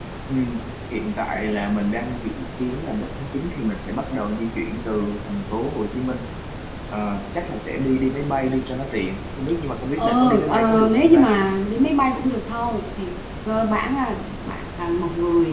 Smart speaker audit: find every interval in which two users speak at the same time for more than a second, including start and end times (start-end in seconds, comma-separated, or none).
10.0-11.2